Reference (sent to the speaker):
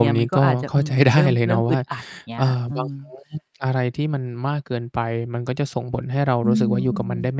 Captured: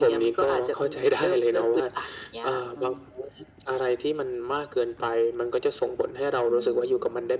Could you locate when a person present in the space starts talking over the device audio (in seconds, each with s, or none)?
none